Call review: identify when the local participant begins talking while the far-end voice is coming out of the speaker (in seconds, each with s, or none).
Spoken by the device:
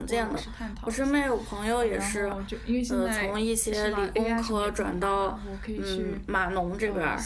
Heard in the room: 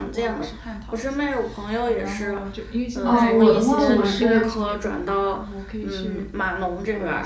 3.0 s